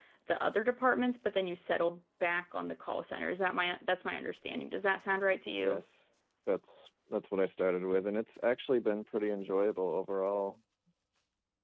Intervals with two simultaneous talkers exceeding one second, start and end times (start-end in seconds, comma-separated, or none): none